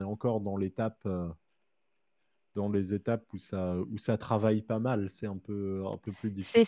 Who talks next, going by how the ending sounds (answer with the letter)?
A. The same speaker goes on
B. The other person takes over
B